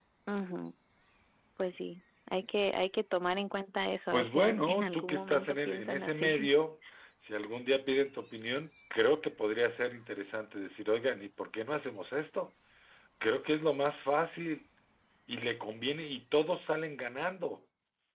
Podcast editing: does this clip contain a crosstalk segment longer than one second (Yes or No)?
Yes